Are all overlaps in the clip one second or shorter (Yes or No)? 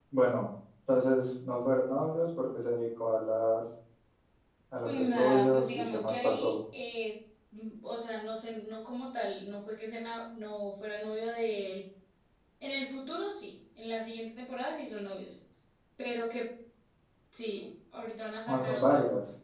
No